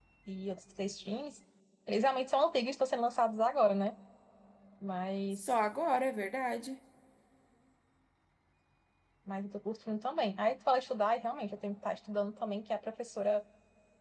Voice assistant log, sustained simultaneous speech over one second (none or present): none